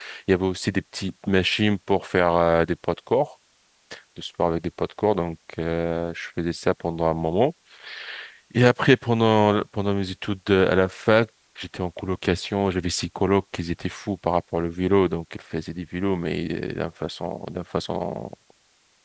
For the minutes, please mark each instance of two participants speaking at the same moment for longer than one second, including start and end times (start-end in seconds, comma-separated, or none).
none